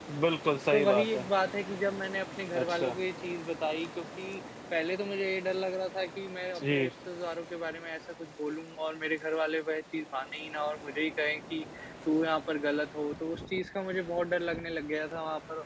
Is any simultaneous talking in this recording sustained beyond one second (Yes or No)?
No